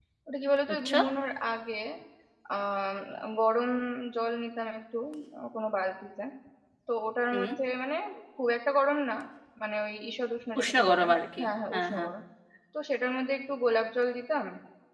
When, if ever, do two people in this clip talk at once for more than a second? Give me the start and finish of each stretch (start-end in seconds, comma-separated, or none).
10.6-12.1